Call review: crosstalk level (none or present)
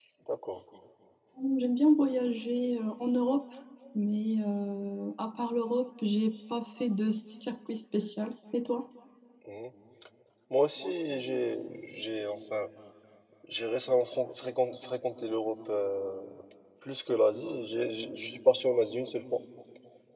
none